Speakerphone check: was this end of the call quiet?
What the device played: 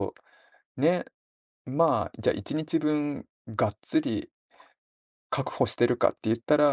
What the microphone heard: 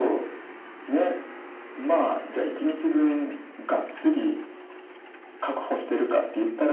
Yes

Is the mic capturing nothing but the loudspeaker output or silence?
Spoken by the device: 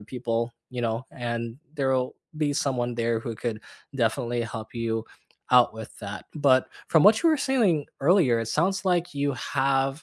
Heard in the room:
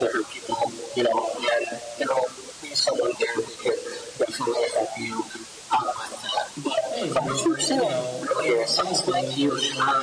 No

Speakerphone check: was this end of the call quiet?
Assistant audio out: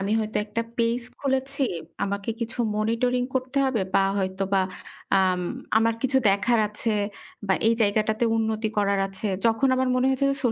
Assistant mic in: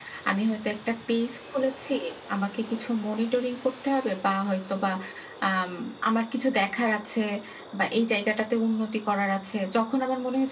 Yes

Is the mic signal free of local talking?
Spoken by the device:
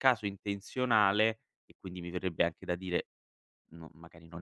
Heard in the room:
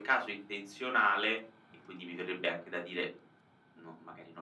Yes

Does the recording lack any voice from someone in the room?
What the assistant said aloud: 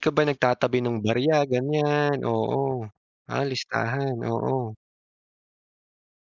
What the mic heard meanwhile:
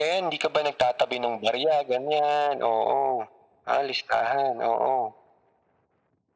Yes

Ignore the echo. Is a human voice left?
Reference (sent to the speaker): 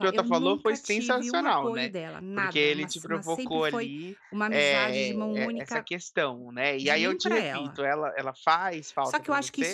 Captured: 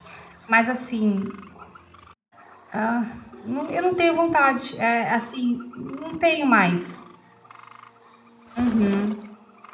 Yes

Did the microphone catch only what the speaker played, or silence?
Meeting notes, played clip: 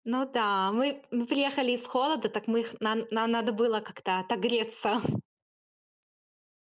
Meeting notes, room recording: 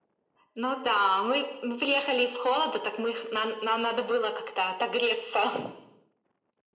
Yes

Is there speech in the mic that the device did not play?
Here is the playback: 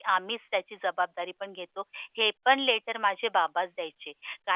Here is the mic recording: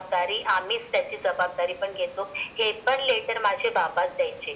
No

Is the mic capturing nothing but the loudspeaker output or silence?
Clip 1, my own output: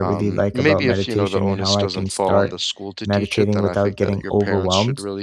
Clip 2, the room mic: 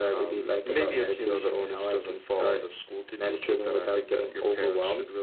Yes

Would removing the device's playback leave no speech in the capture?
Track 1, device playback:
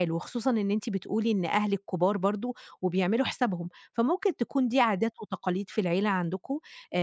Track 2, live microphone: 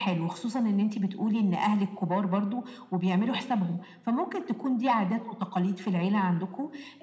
Yes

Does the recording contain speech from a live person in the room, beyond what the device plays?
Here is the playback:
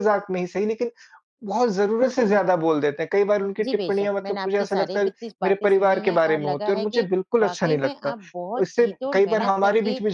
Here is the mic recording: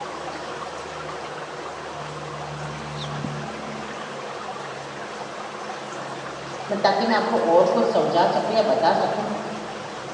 Yes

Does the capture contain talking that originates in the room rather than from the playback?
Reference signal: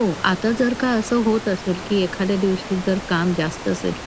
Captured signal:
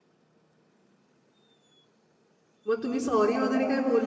Yes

